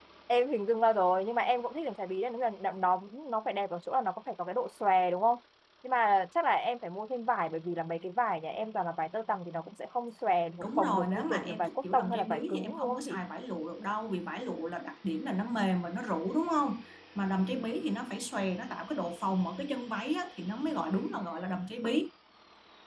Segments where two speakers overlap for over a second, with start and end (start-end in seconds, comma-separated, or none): 10.6-13.2